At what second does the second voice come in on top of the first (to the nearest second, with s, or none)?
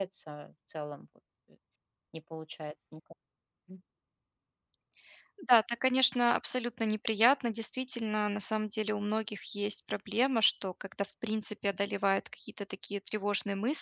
none